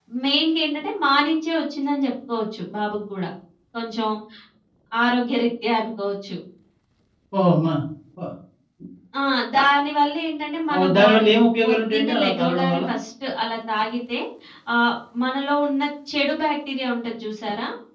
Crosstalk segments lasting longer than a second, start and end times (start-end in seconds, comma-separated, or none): 10.8-12.8